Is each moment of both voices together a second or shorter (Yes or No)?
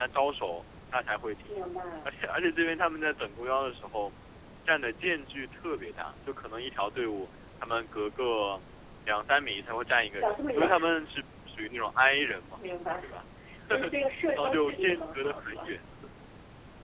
No